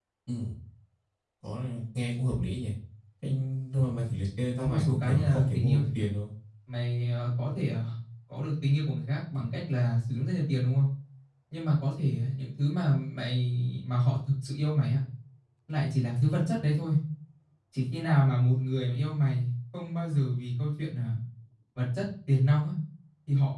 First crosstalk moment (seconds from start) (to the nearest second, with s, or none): 5 s